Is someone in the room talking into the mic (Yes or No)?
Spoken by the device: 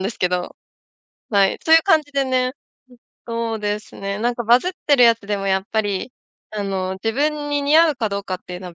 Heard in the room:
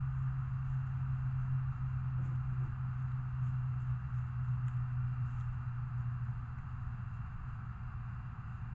No